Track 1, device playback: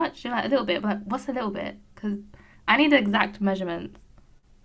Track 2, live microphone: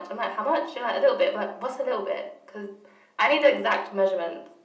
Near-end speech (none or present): none